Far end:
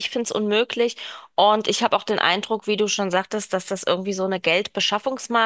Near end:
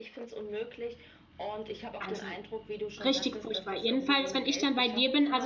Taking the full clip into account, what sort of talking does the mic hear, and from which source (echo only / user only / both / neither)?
both